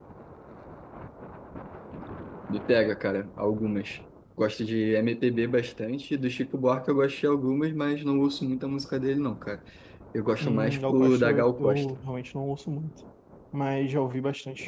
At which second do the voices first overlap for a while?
10.4 s

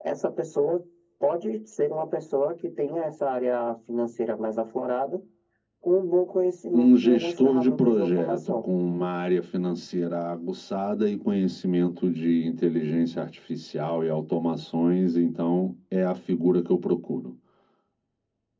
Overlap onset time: 6.7 s

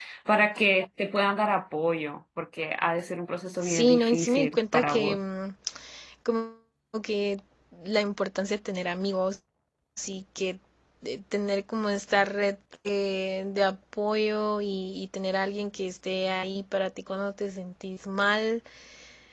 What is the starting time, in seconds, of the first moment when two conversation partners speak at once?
3.6 s

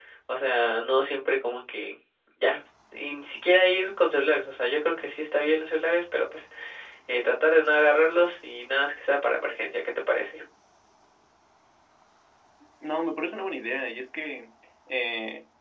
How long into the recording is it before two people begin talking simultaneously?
none

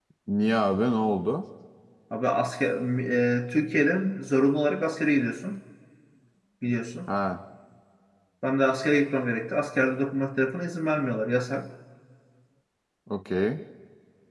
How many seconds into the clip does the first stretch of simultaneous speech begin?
none

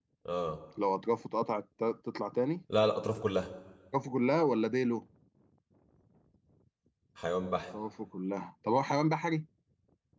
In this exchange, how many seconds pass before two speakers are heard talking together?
none

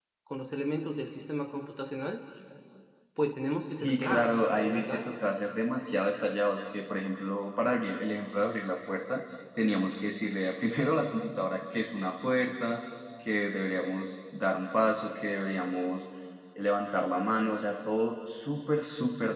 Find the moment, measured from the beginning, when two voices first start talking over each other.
3.8 s

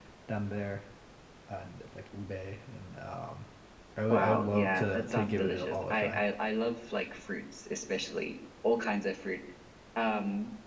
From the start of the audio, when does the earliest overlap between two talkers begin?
4.1 s

